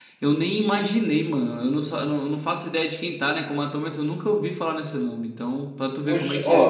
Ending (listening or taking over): taking over